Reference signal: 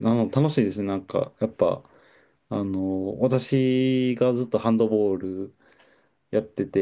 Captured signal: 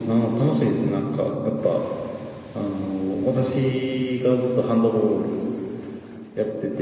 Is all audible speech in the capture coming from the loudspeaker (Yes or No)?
Yes